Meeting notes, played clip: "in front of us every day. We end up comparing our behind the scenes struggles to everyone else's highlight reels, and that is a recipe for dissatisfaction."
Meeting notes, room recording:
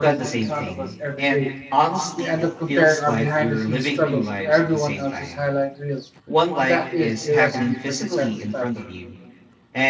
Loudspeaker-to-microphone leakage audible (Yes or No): Yes